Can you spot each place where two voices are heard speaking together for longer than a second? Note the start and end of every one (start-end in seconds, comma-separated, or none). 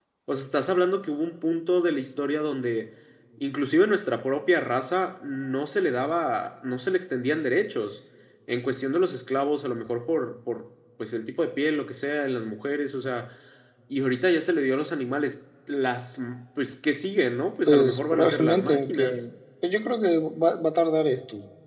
17.7-19.2